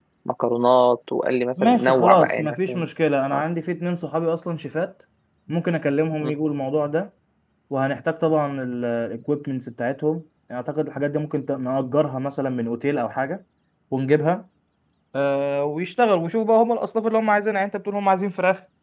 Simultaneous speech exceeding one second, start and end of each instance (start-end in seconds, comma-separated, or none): 1.6-2.8